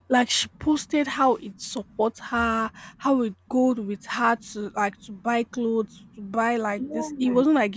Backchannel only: Yes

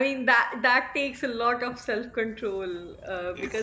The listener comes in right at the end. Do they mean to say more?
No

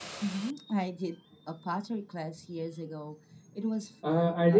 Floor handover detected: Yes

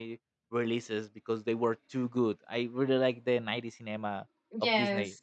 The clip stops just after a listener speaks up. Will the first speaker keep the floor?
Yes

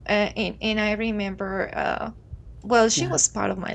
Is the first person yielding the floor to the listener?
No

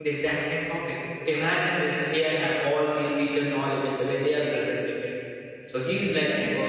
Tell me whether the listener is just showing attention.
Yes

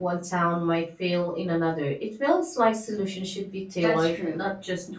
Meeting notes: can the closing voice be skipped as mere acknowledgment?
No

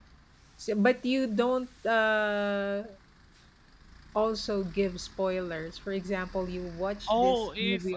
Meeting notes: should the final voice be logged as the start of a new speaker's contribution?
Yes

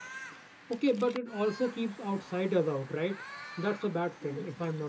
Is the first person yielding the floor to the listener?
Yes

